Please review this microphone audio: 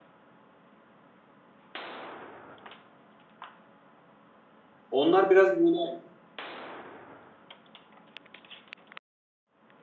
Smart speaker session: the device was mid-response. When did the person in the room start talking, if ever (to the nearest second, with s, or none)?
5 s